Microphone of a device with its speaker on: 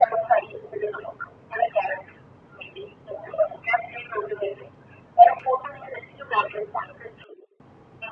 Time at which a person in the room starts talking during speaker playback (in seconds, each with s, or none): none